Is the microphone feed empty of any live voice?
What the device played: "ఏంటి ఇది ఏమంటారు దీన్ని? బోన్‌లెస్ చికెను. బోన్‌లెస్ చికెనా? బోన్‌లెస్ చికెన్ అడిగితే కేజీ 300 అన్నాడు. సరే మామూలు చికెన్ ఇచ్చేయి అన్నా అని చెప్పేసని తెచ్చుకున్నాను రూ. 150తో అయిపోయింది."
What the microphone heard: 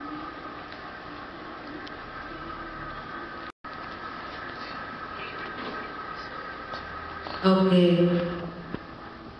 No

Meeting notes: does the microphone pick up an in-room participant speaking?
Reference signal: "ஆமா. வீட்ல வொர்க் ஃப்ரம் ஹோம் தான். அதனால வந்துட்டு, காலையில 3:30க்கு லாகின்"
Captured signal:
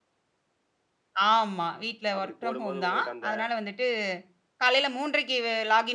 Yes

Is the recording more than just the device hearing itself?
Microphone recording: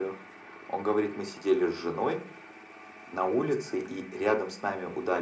No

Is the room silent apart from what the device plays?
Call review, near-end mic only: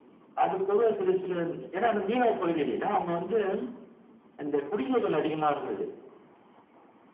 Yes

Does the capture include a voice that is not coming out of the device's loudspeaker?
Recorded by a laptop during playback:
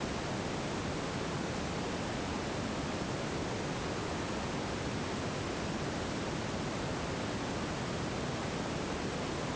No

